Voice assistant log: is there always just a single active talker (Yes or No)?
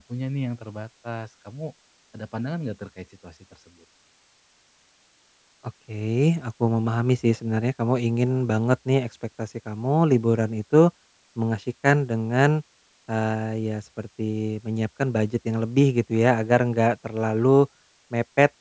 Yes